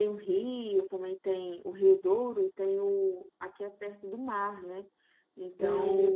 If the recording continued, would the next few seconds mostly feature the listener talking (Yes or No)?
No